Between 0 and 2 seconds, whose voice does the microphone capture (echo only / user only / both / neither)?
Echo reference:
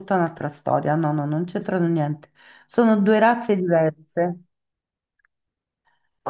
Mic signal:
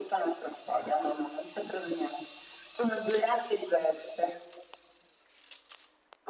echo only